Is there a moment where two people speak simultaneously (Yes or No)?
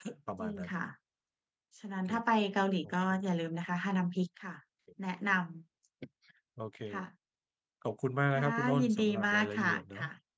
Yes